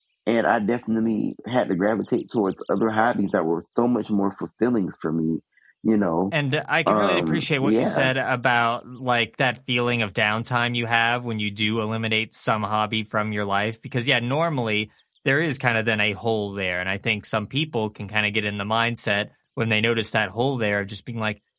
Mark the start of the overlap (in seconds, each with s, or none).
6.9 s